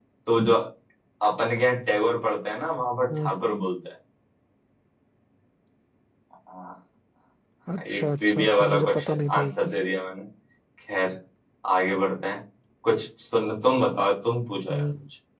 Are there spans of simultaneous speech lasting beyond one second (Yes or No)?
Yes